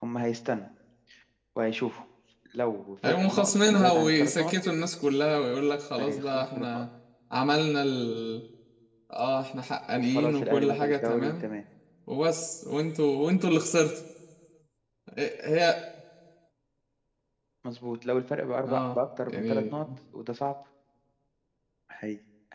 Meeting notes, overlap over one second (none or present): present